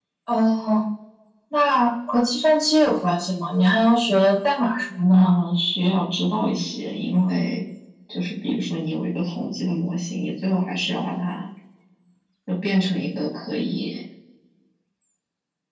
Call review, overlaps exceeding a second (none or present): none